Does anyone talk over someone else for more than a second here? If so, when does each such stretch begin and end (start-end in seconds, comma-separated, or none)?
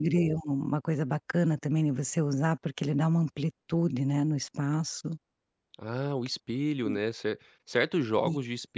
none